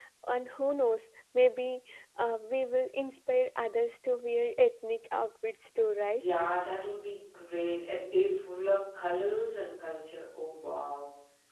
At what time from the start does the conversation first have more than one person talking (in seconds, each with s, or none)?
none